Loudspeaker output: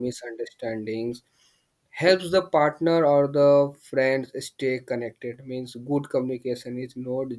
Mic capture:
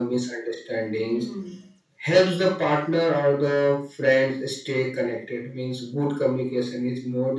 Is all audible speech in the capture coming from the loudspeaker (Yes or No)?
No